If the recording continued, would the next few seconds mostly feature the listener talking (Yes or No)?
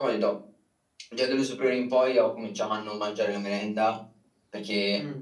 No